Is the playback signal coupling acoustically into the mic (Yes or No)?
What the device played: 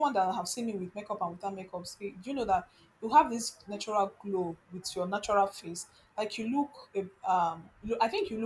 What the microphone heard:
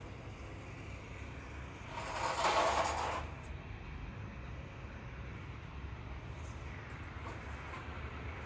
No